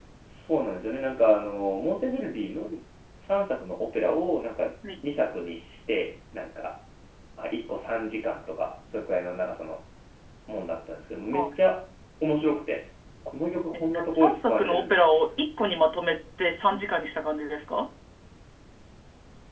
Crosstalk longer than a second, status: present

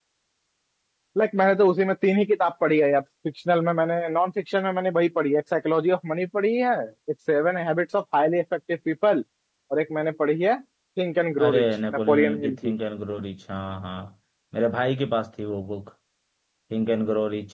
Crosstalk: present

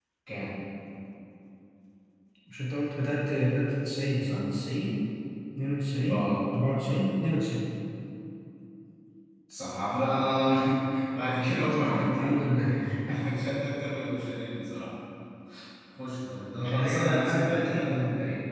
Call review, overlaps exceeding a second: present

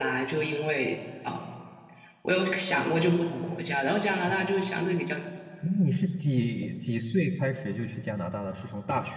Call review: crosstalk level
none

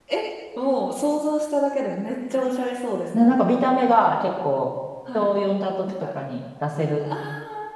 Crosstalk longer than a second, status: none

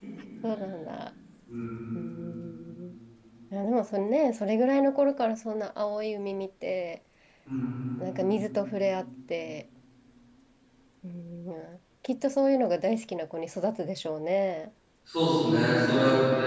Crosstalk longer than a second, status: none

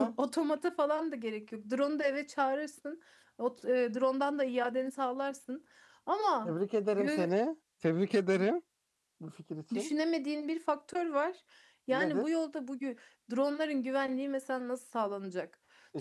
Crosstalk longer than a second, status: none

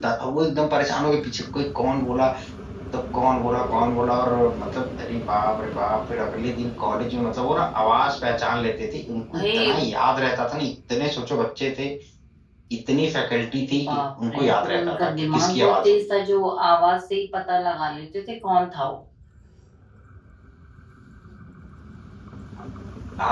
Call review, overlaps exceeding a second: present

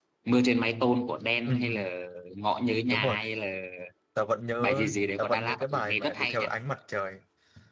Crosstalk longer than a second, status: present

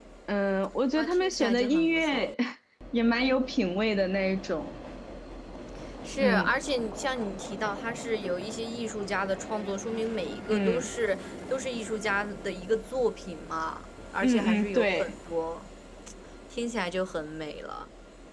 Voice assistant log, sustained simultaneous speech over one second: present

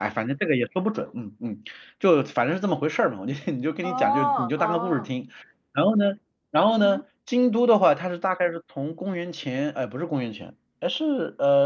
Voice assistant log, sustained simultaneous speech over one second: present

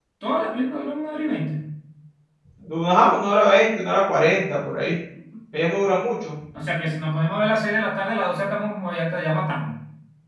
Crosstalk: none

